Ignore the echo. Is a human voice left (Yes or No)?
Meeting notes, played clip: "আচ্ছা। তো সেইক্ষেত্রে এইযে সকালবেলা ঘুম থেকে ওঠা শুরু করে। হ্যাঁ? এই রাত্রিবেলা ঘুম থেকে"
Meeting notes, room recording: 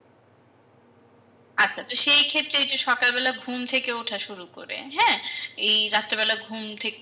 No